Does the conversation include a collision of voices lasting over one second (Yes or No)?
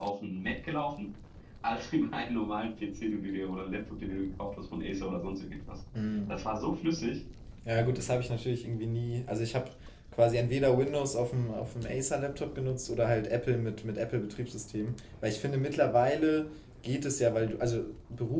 No